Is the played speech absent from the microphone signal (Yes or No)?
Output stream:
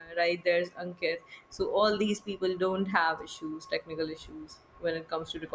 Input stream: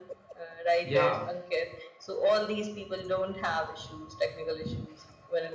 No